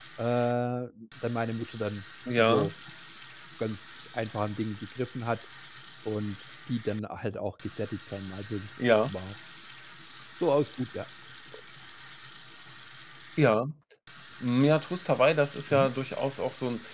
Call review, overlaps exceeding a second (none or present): none